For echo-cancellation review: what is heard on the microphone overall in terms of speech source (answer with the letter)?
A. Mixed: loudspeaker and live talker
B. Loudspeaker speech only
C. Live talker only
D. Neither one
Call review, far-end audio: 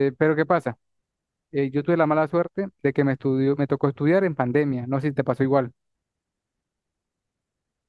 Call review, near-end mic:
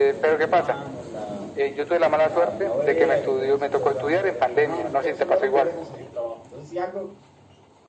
A